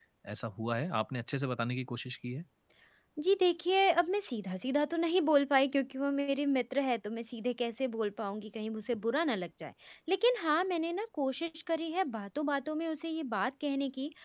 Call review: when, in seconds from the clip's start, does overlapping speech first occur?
none

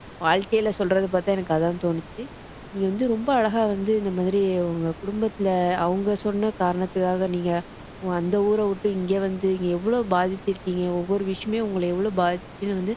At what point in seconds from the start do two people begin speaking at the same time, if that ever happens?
none

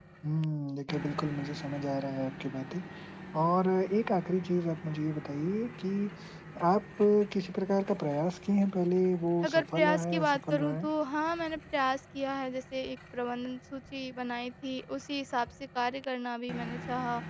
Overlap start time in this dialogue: 9.4 s

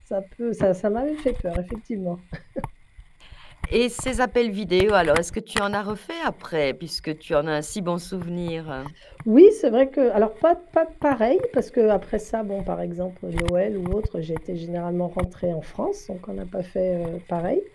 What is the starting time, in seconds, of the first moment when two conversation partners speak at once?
none

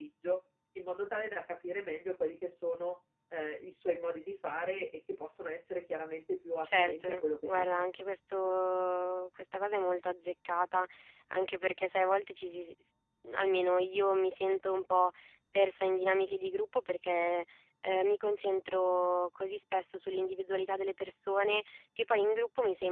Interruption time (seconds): 6.6 s

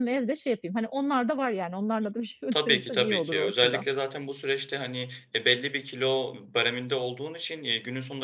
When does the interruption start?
2.5 s

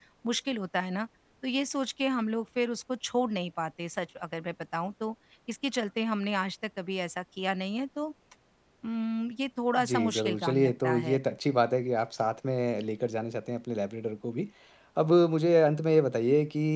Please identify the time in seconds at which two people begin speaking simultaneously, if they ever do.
9.8 s

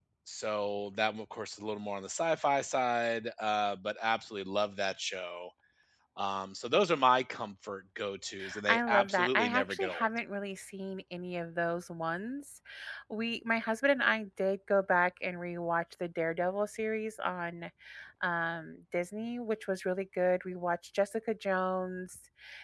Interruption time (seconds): 8.7 s

